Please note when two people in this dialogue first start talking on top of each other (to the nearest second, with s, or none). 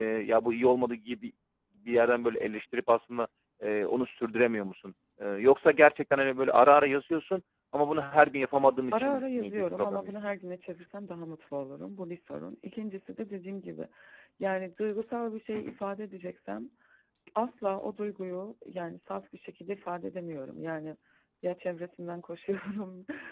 9 s